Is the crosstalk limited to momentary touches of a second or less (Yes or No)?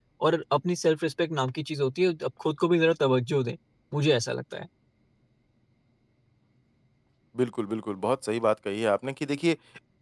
Yes